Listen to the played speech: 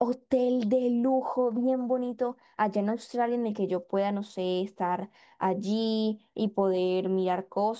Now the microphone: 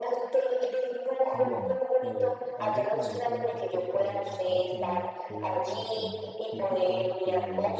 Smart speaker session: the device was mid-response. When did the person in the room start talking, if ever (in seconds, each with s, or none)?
1.3 s